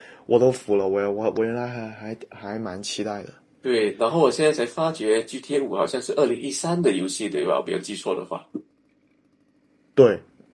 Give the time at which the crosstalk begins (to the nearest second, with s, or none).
none